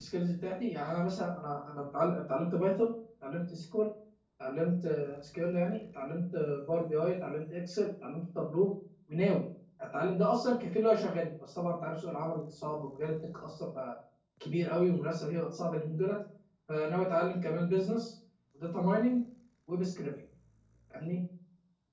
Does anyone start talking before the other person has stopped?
No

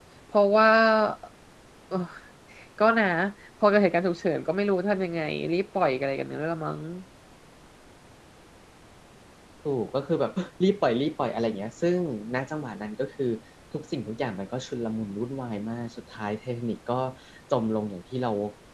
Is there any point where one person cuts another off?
No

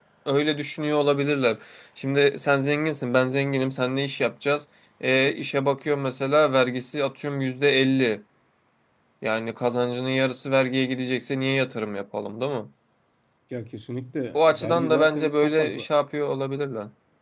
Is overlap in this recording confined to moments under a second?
No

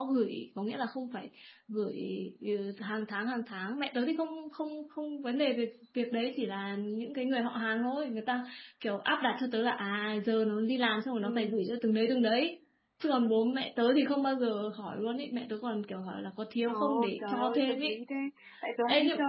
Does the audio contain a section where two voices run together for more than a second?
Yes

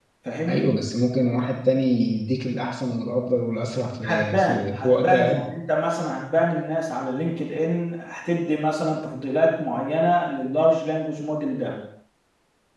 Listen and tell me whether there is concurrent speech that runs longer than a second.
Yes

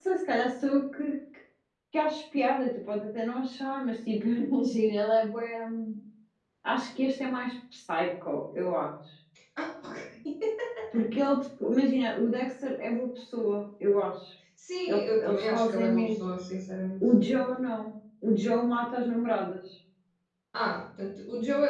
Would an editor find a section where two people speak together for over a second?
Yes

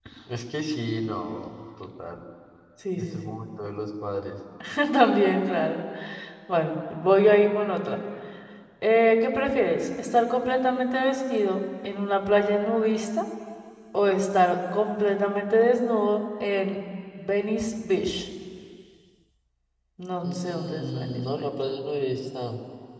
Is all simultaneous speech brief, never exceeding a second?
No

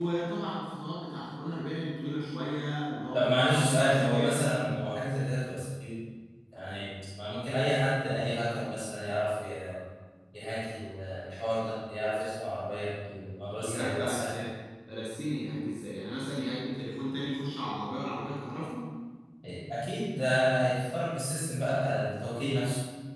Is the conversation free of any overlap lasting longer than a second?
No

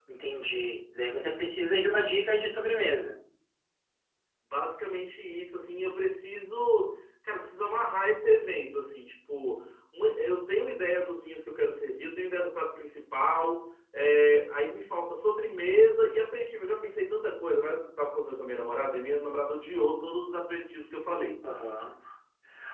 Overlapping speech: No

